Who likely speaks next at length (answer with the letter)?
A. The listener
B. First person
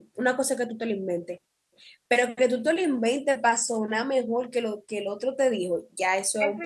A